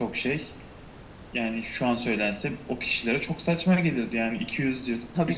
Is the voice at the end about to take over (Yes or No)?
No